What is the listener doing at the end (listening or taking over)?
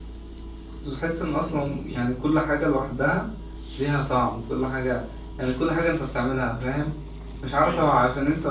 listening